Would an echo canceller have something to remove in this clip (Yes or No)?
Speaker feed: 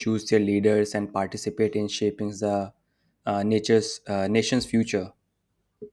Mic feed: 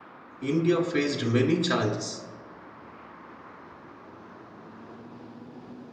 No